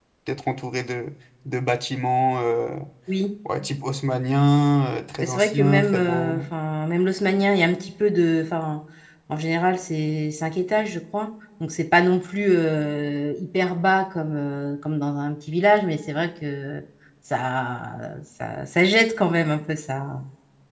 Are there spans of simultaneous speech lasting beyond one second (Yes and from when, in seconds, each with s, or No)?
Yes, from 5.2 s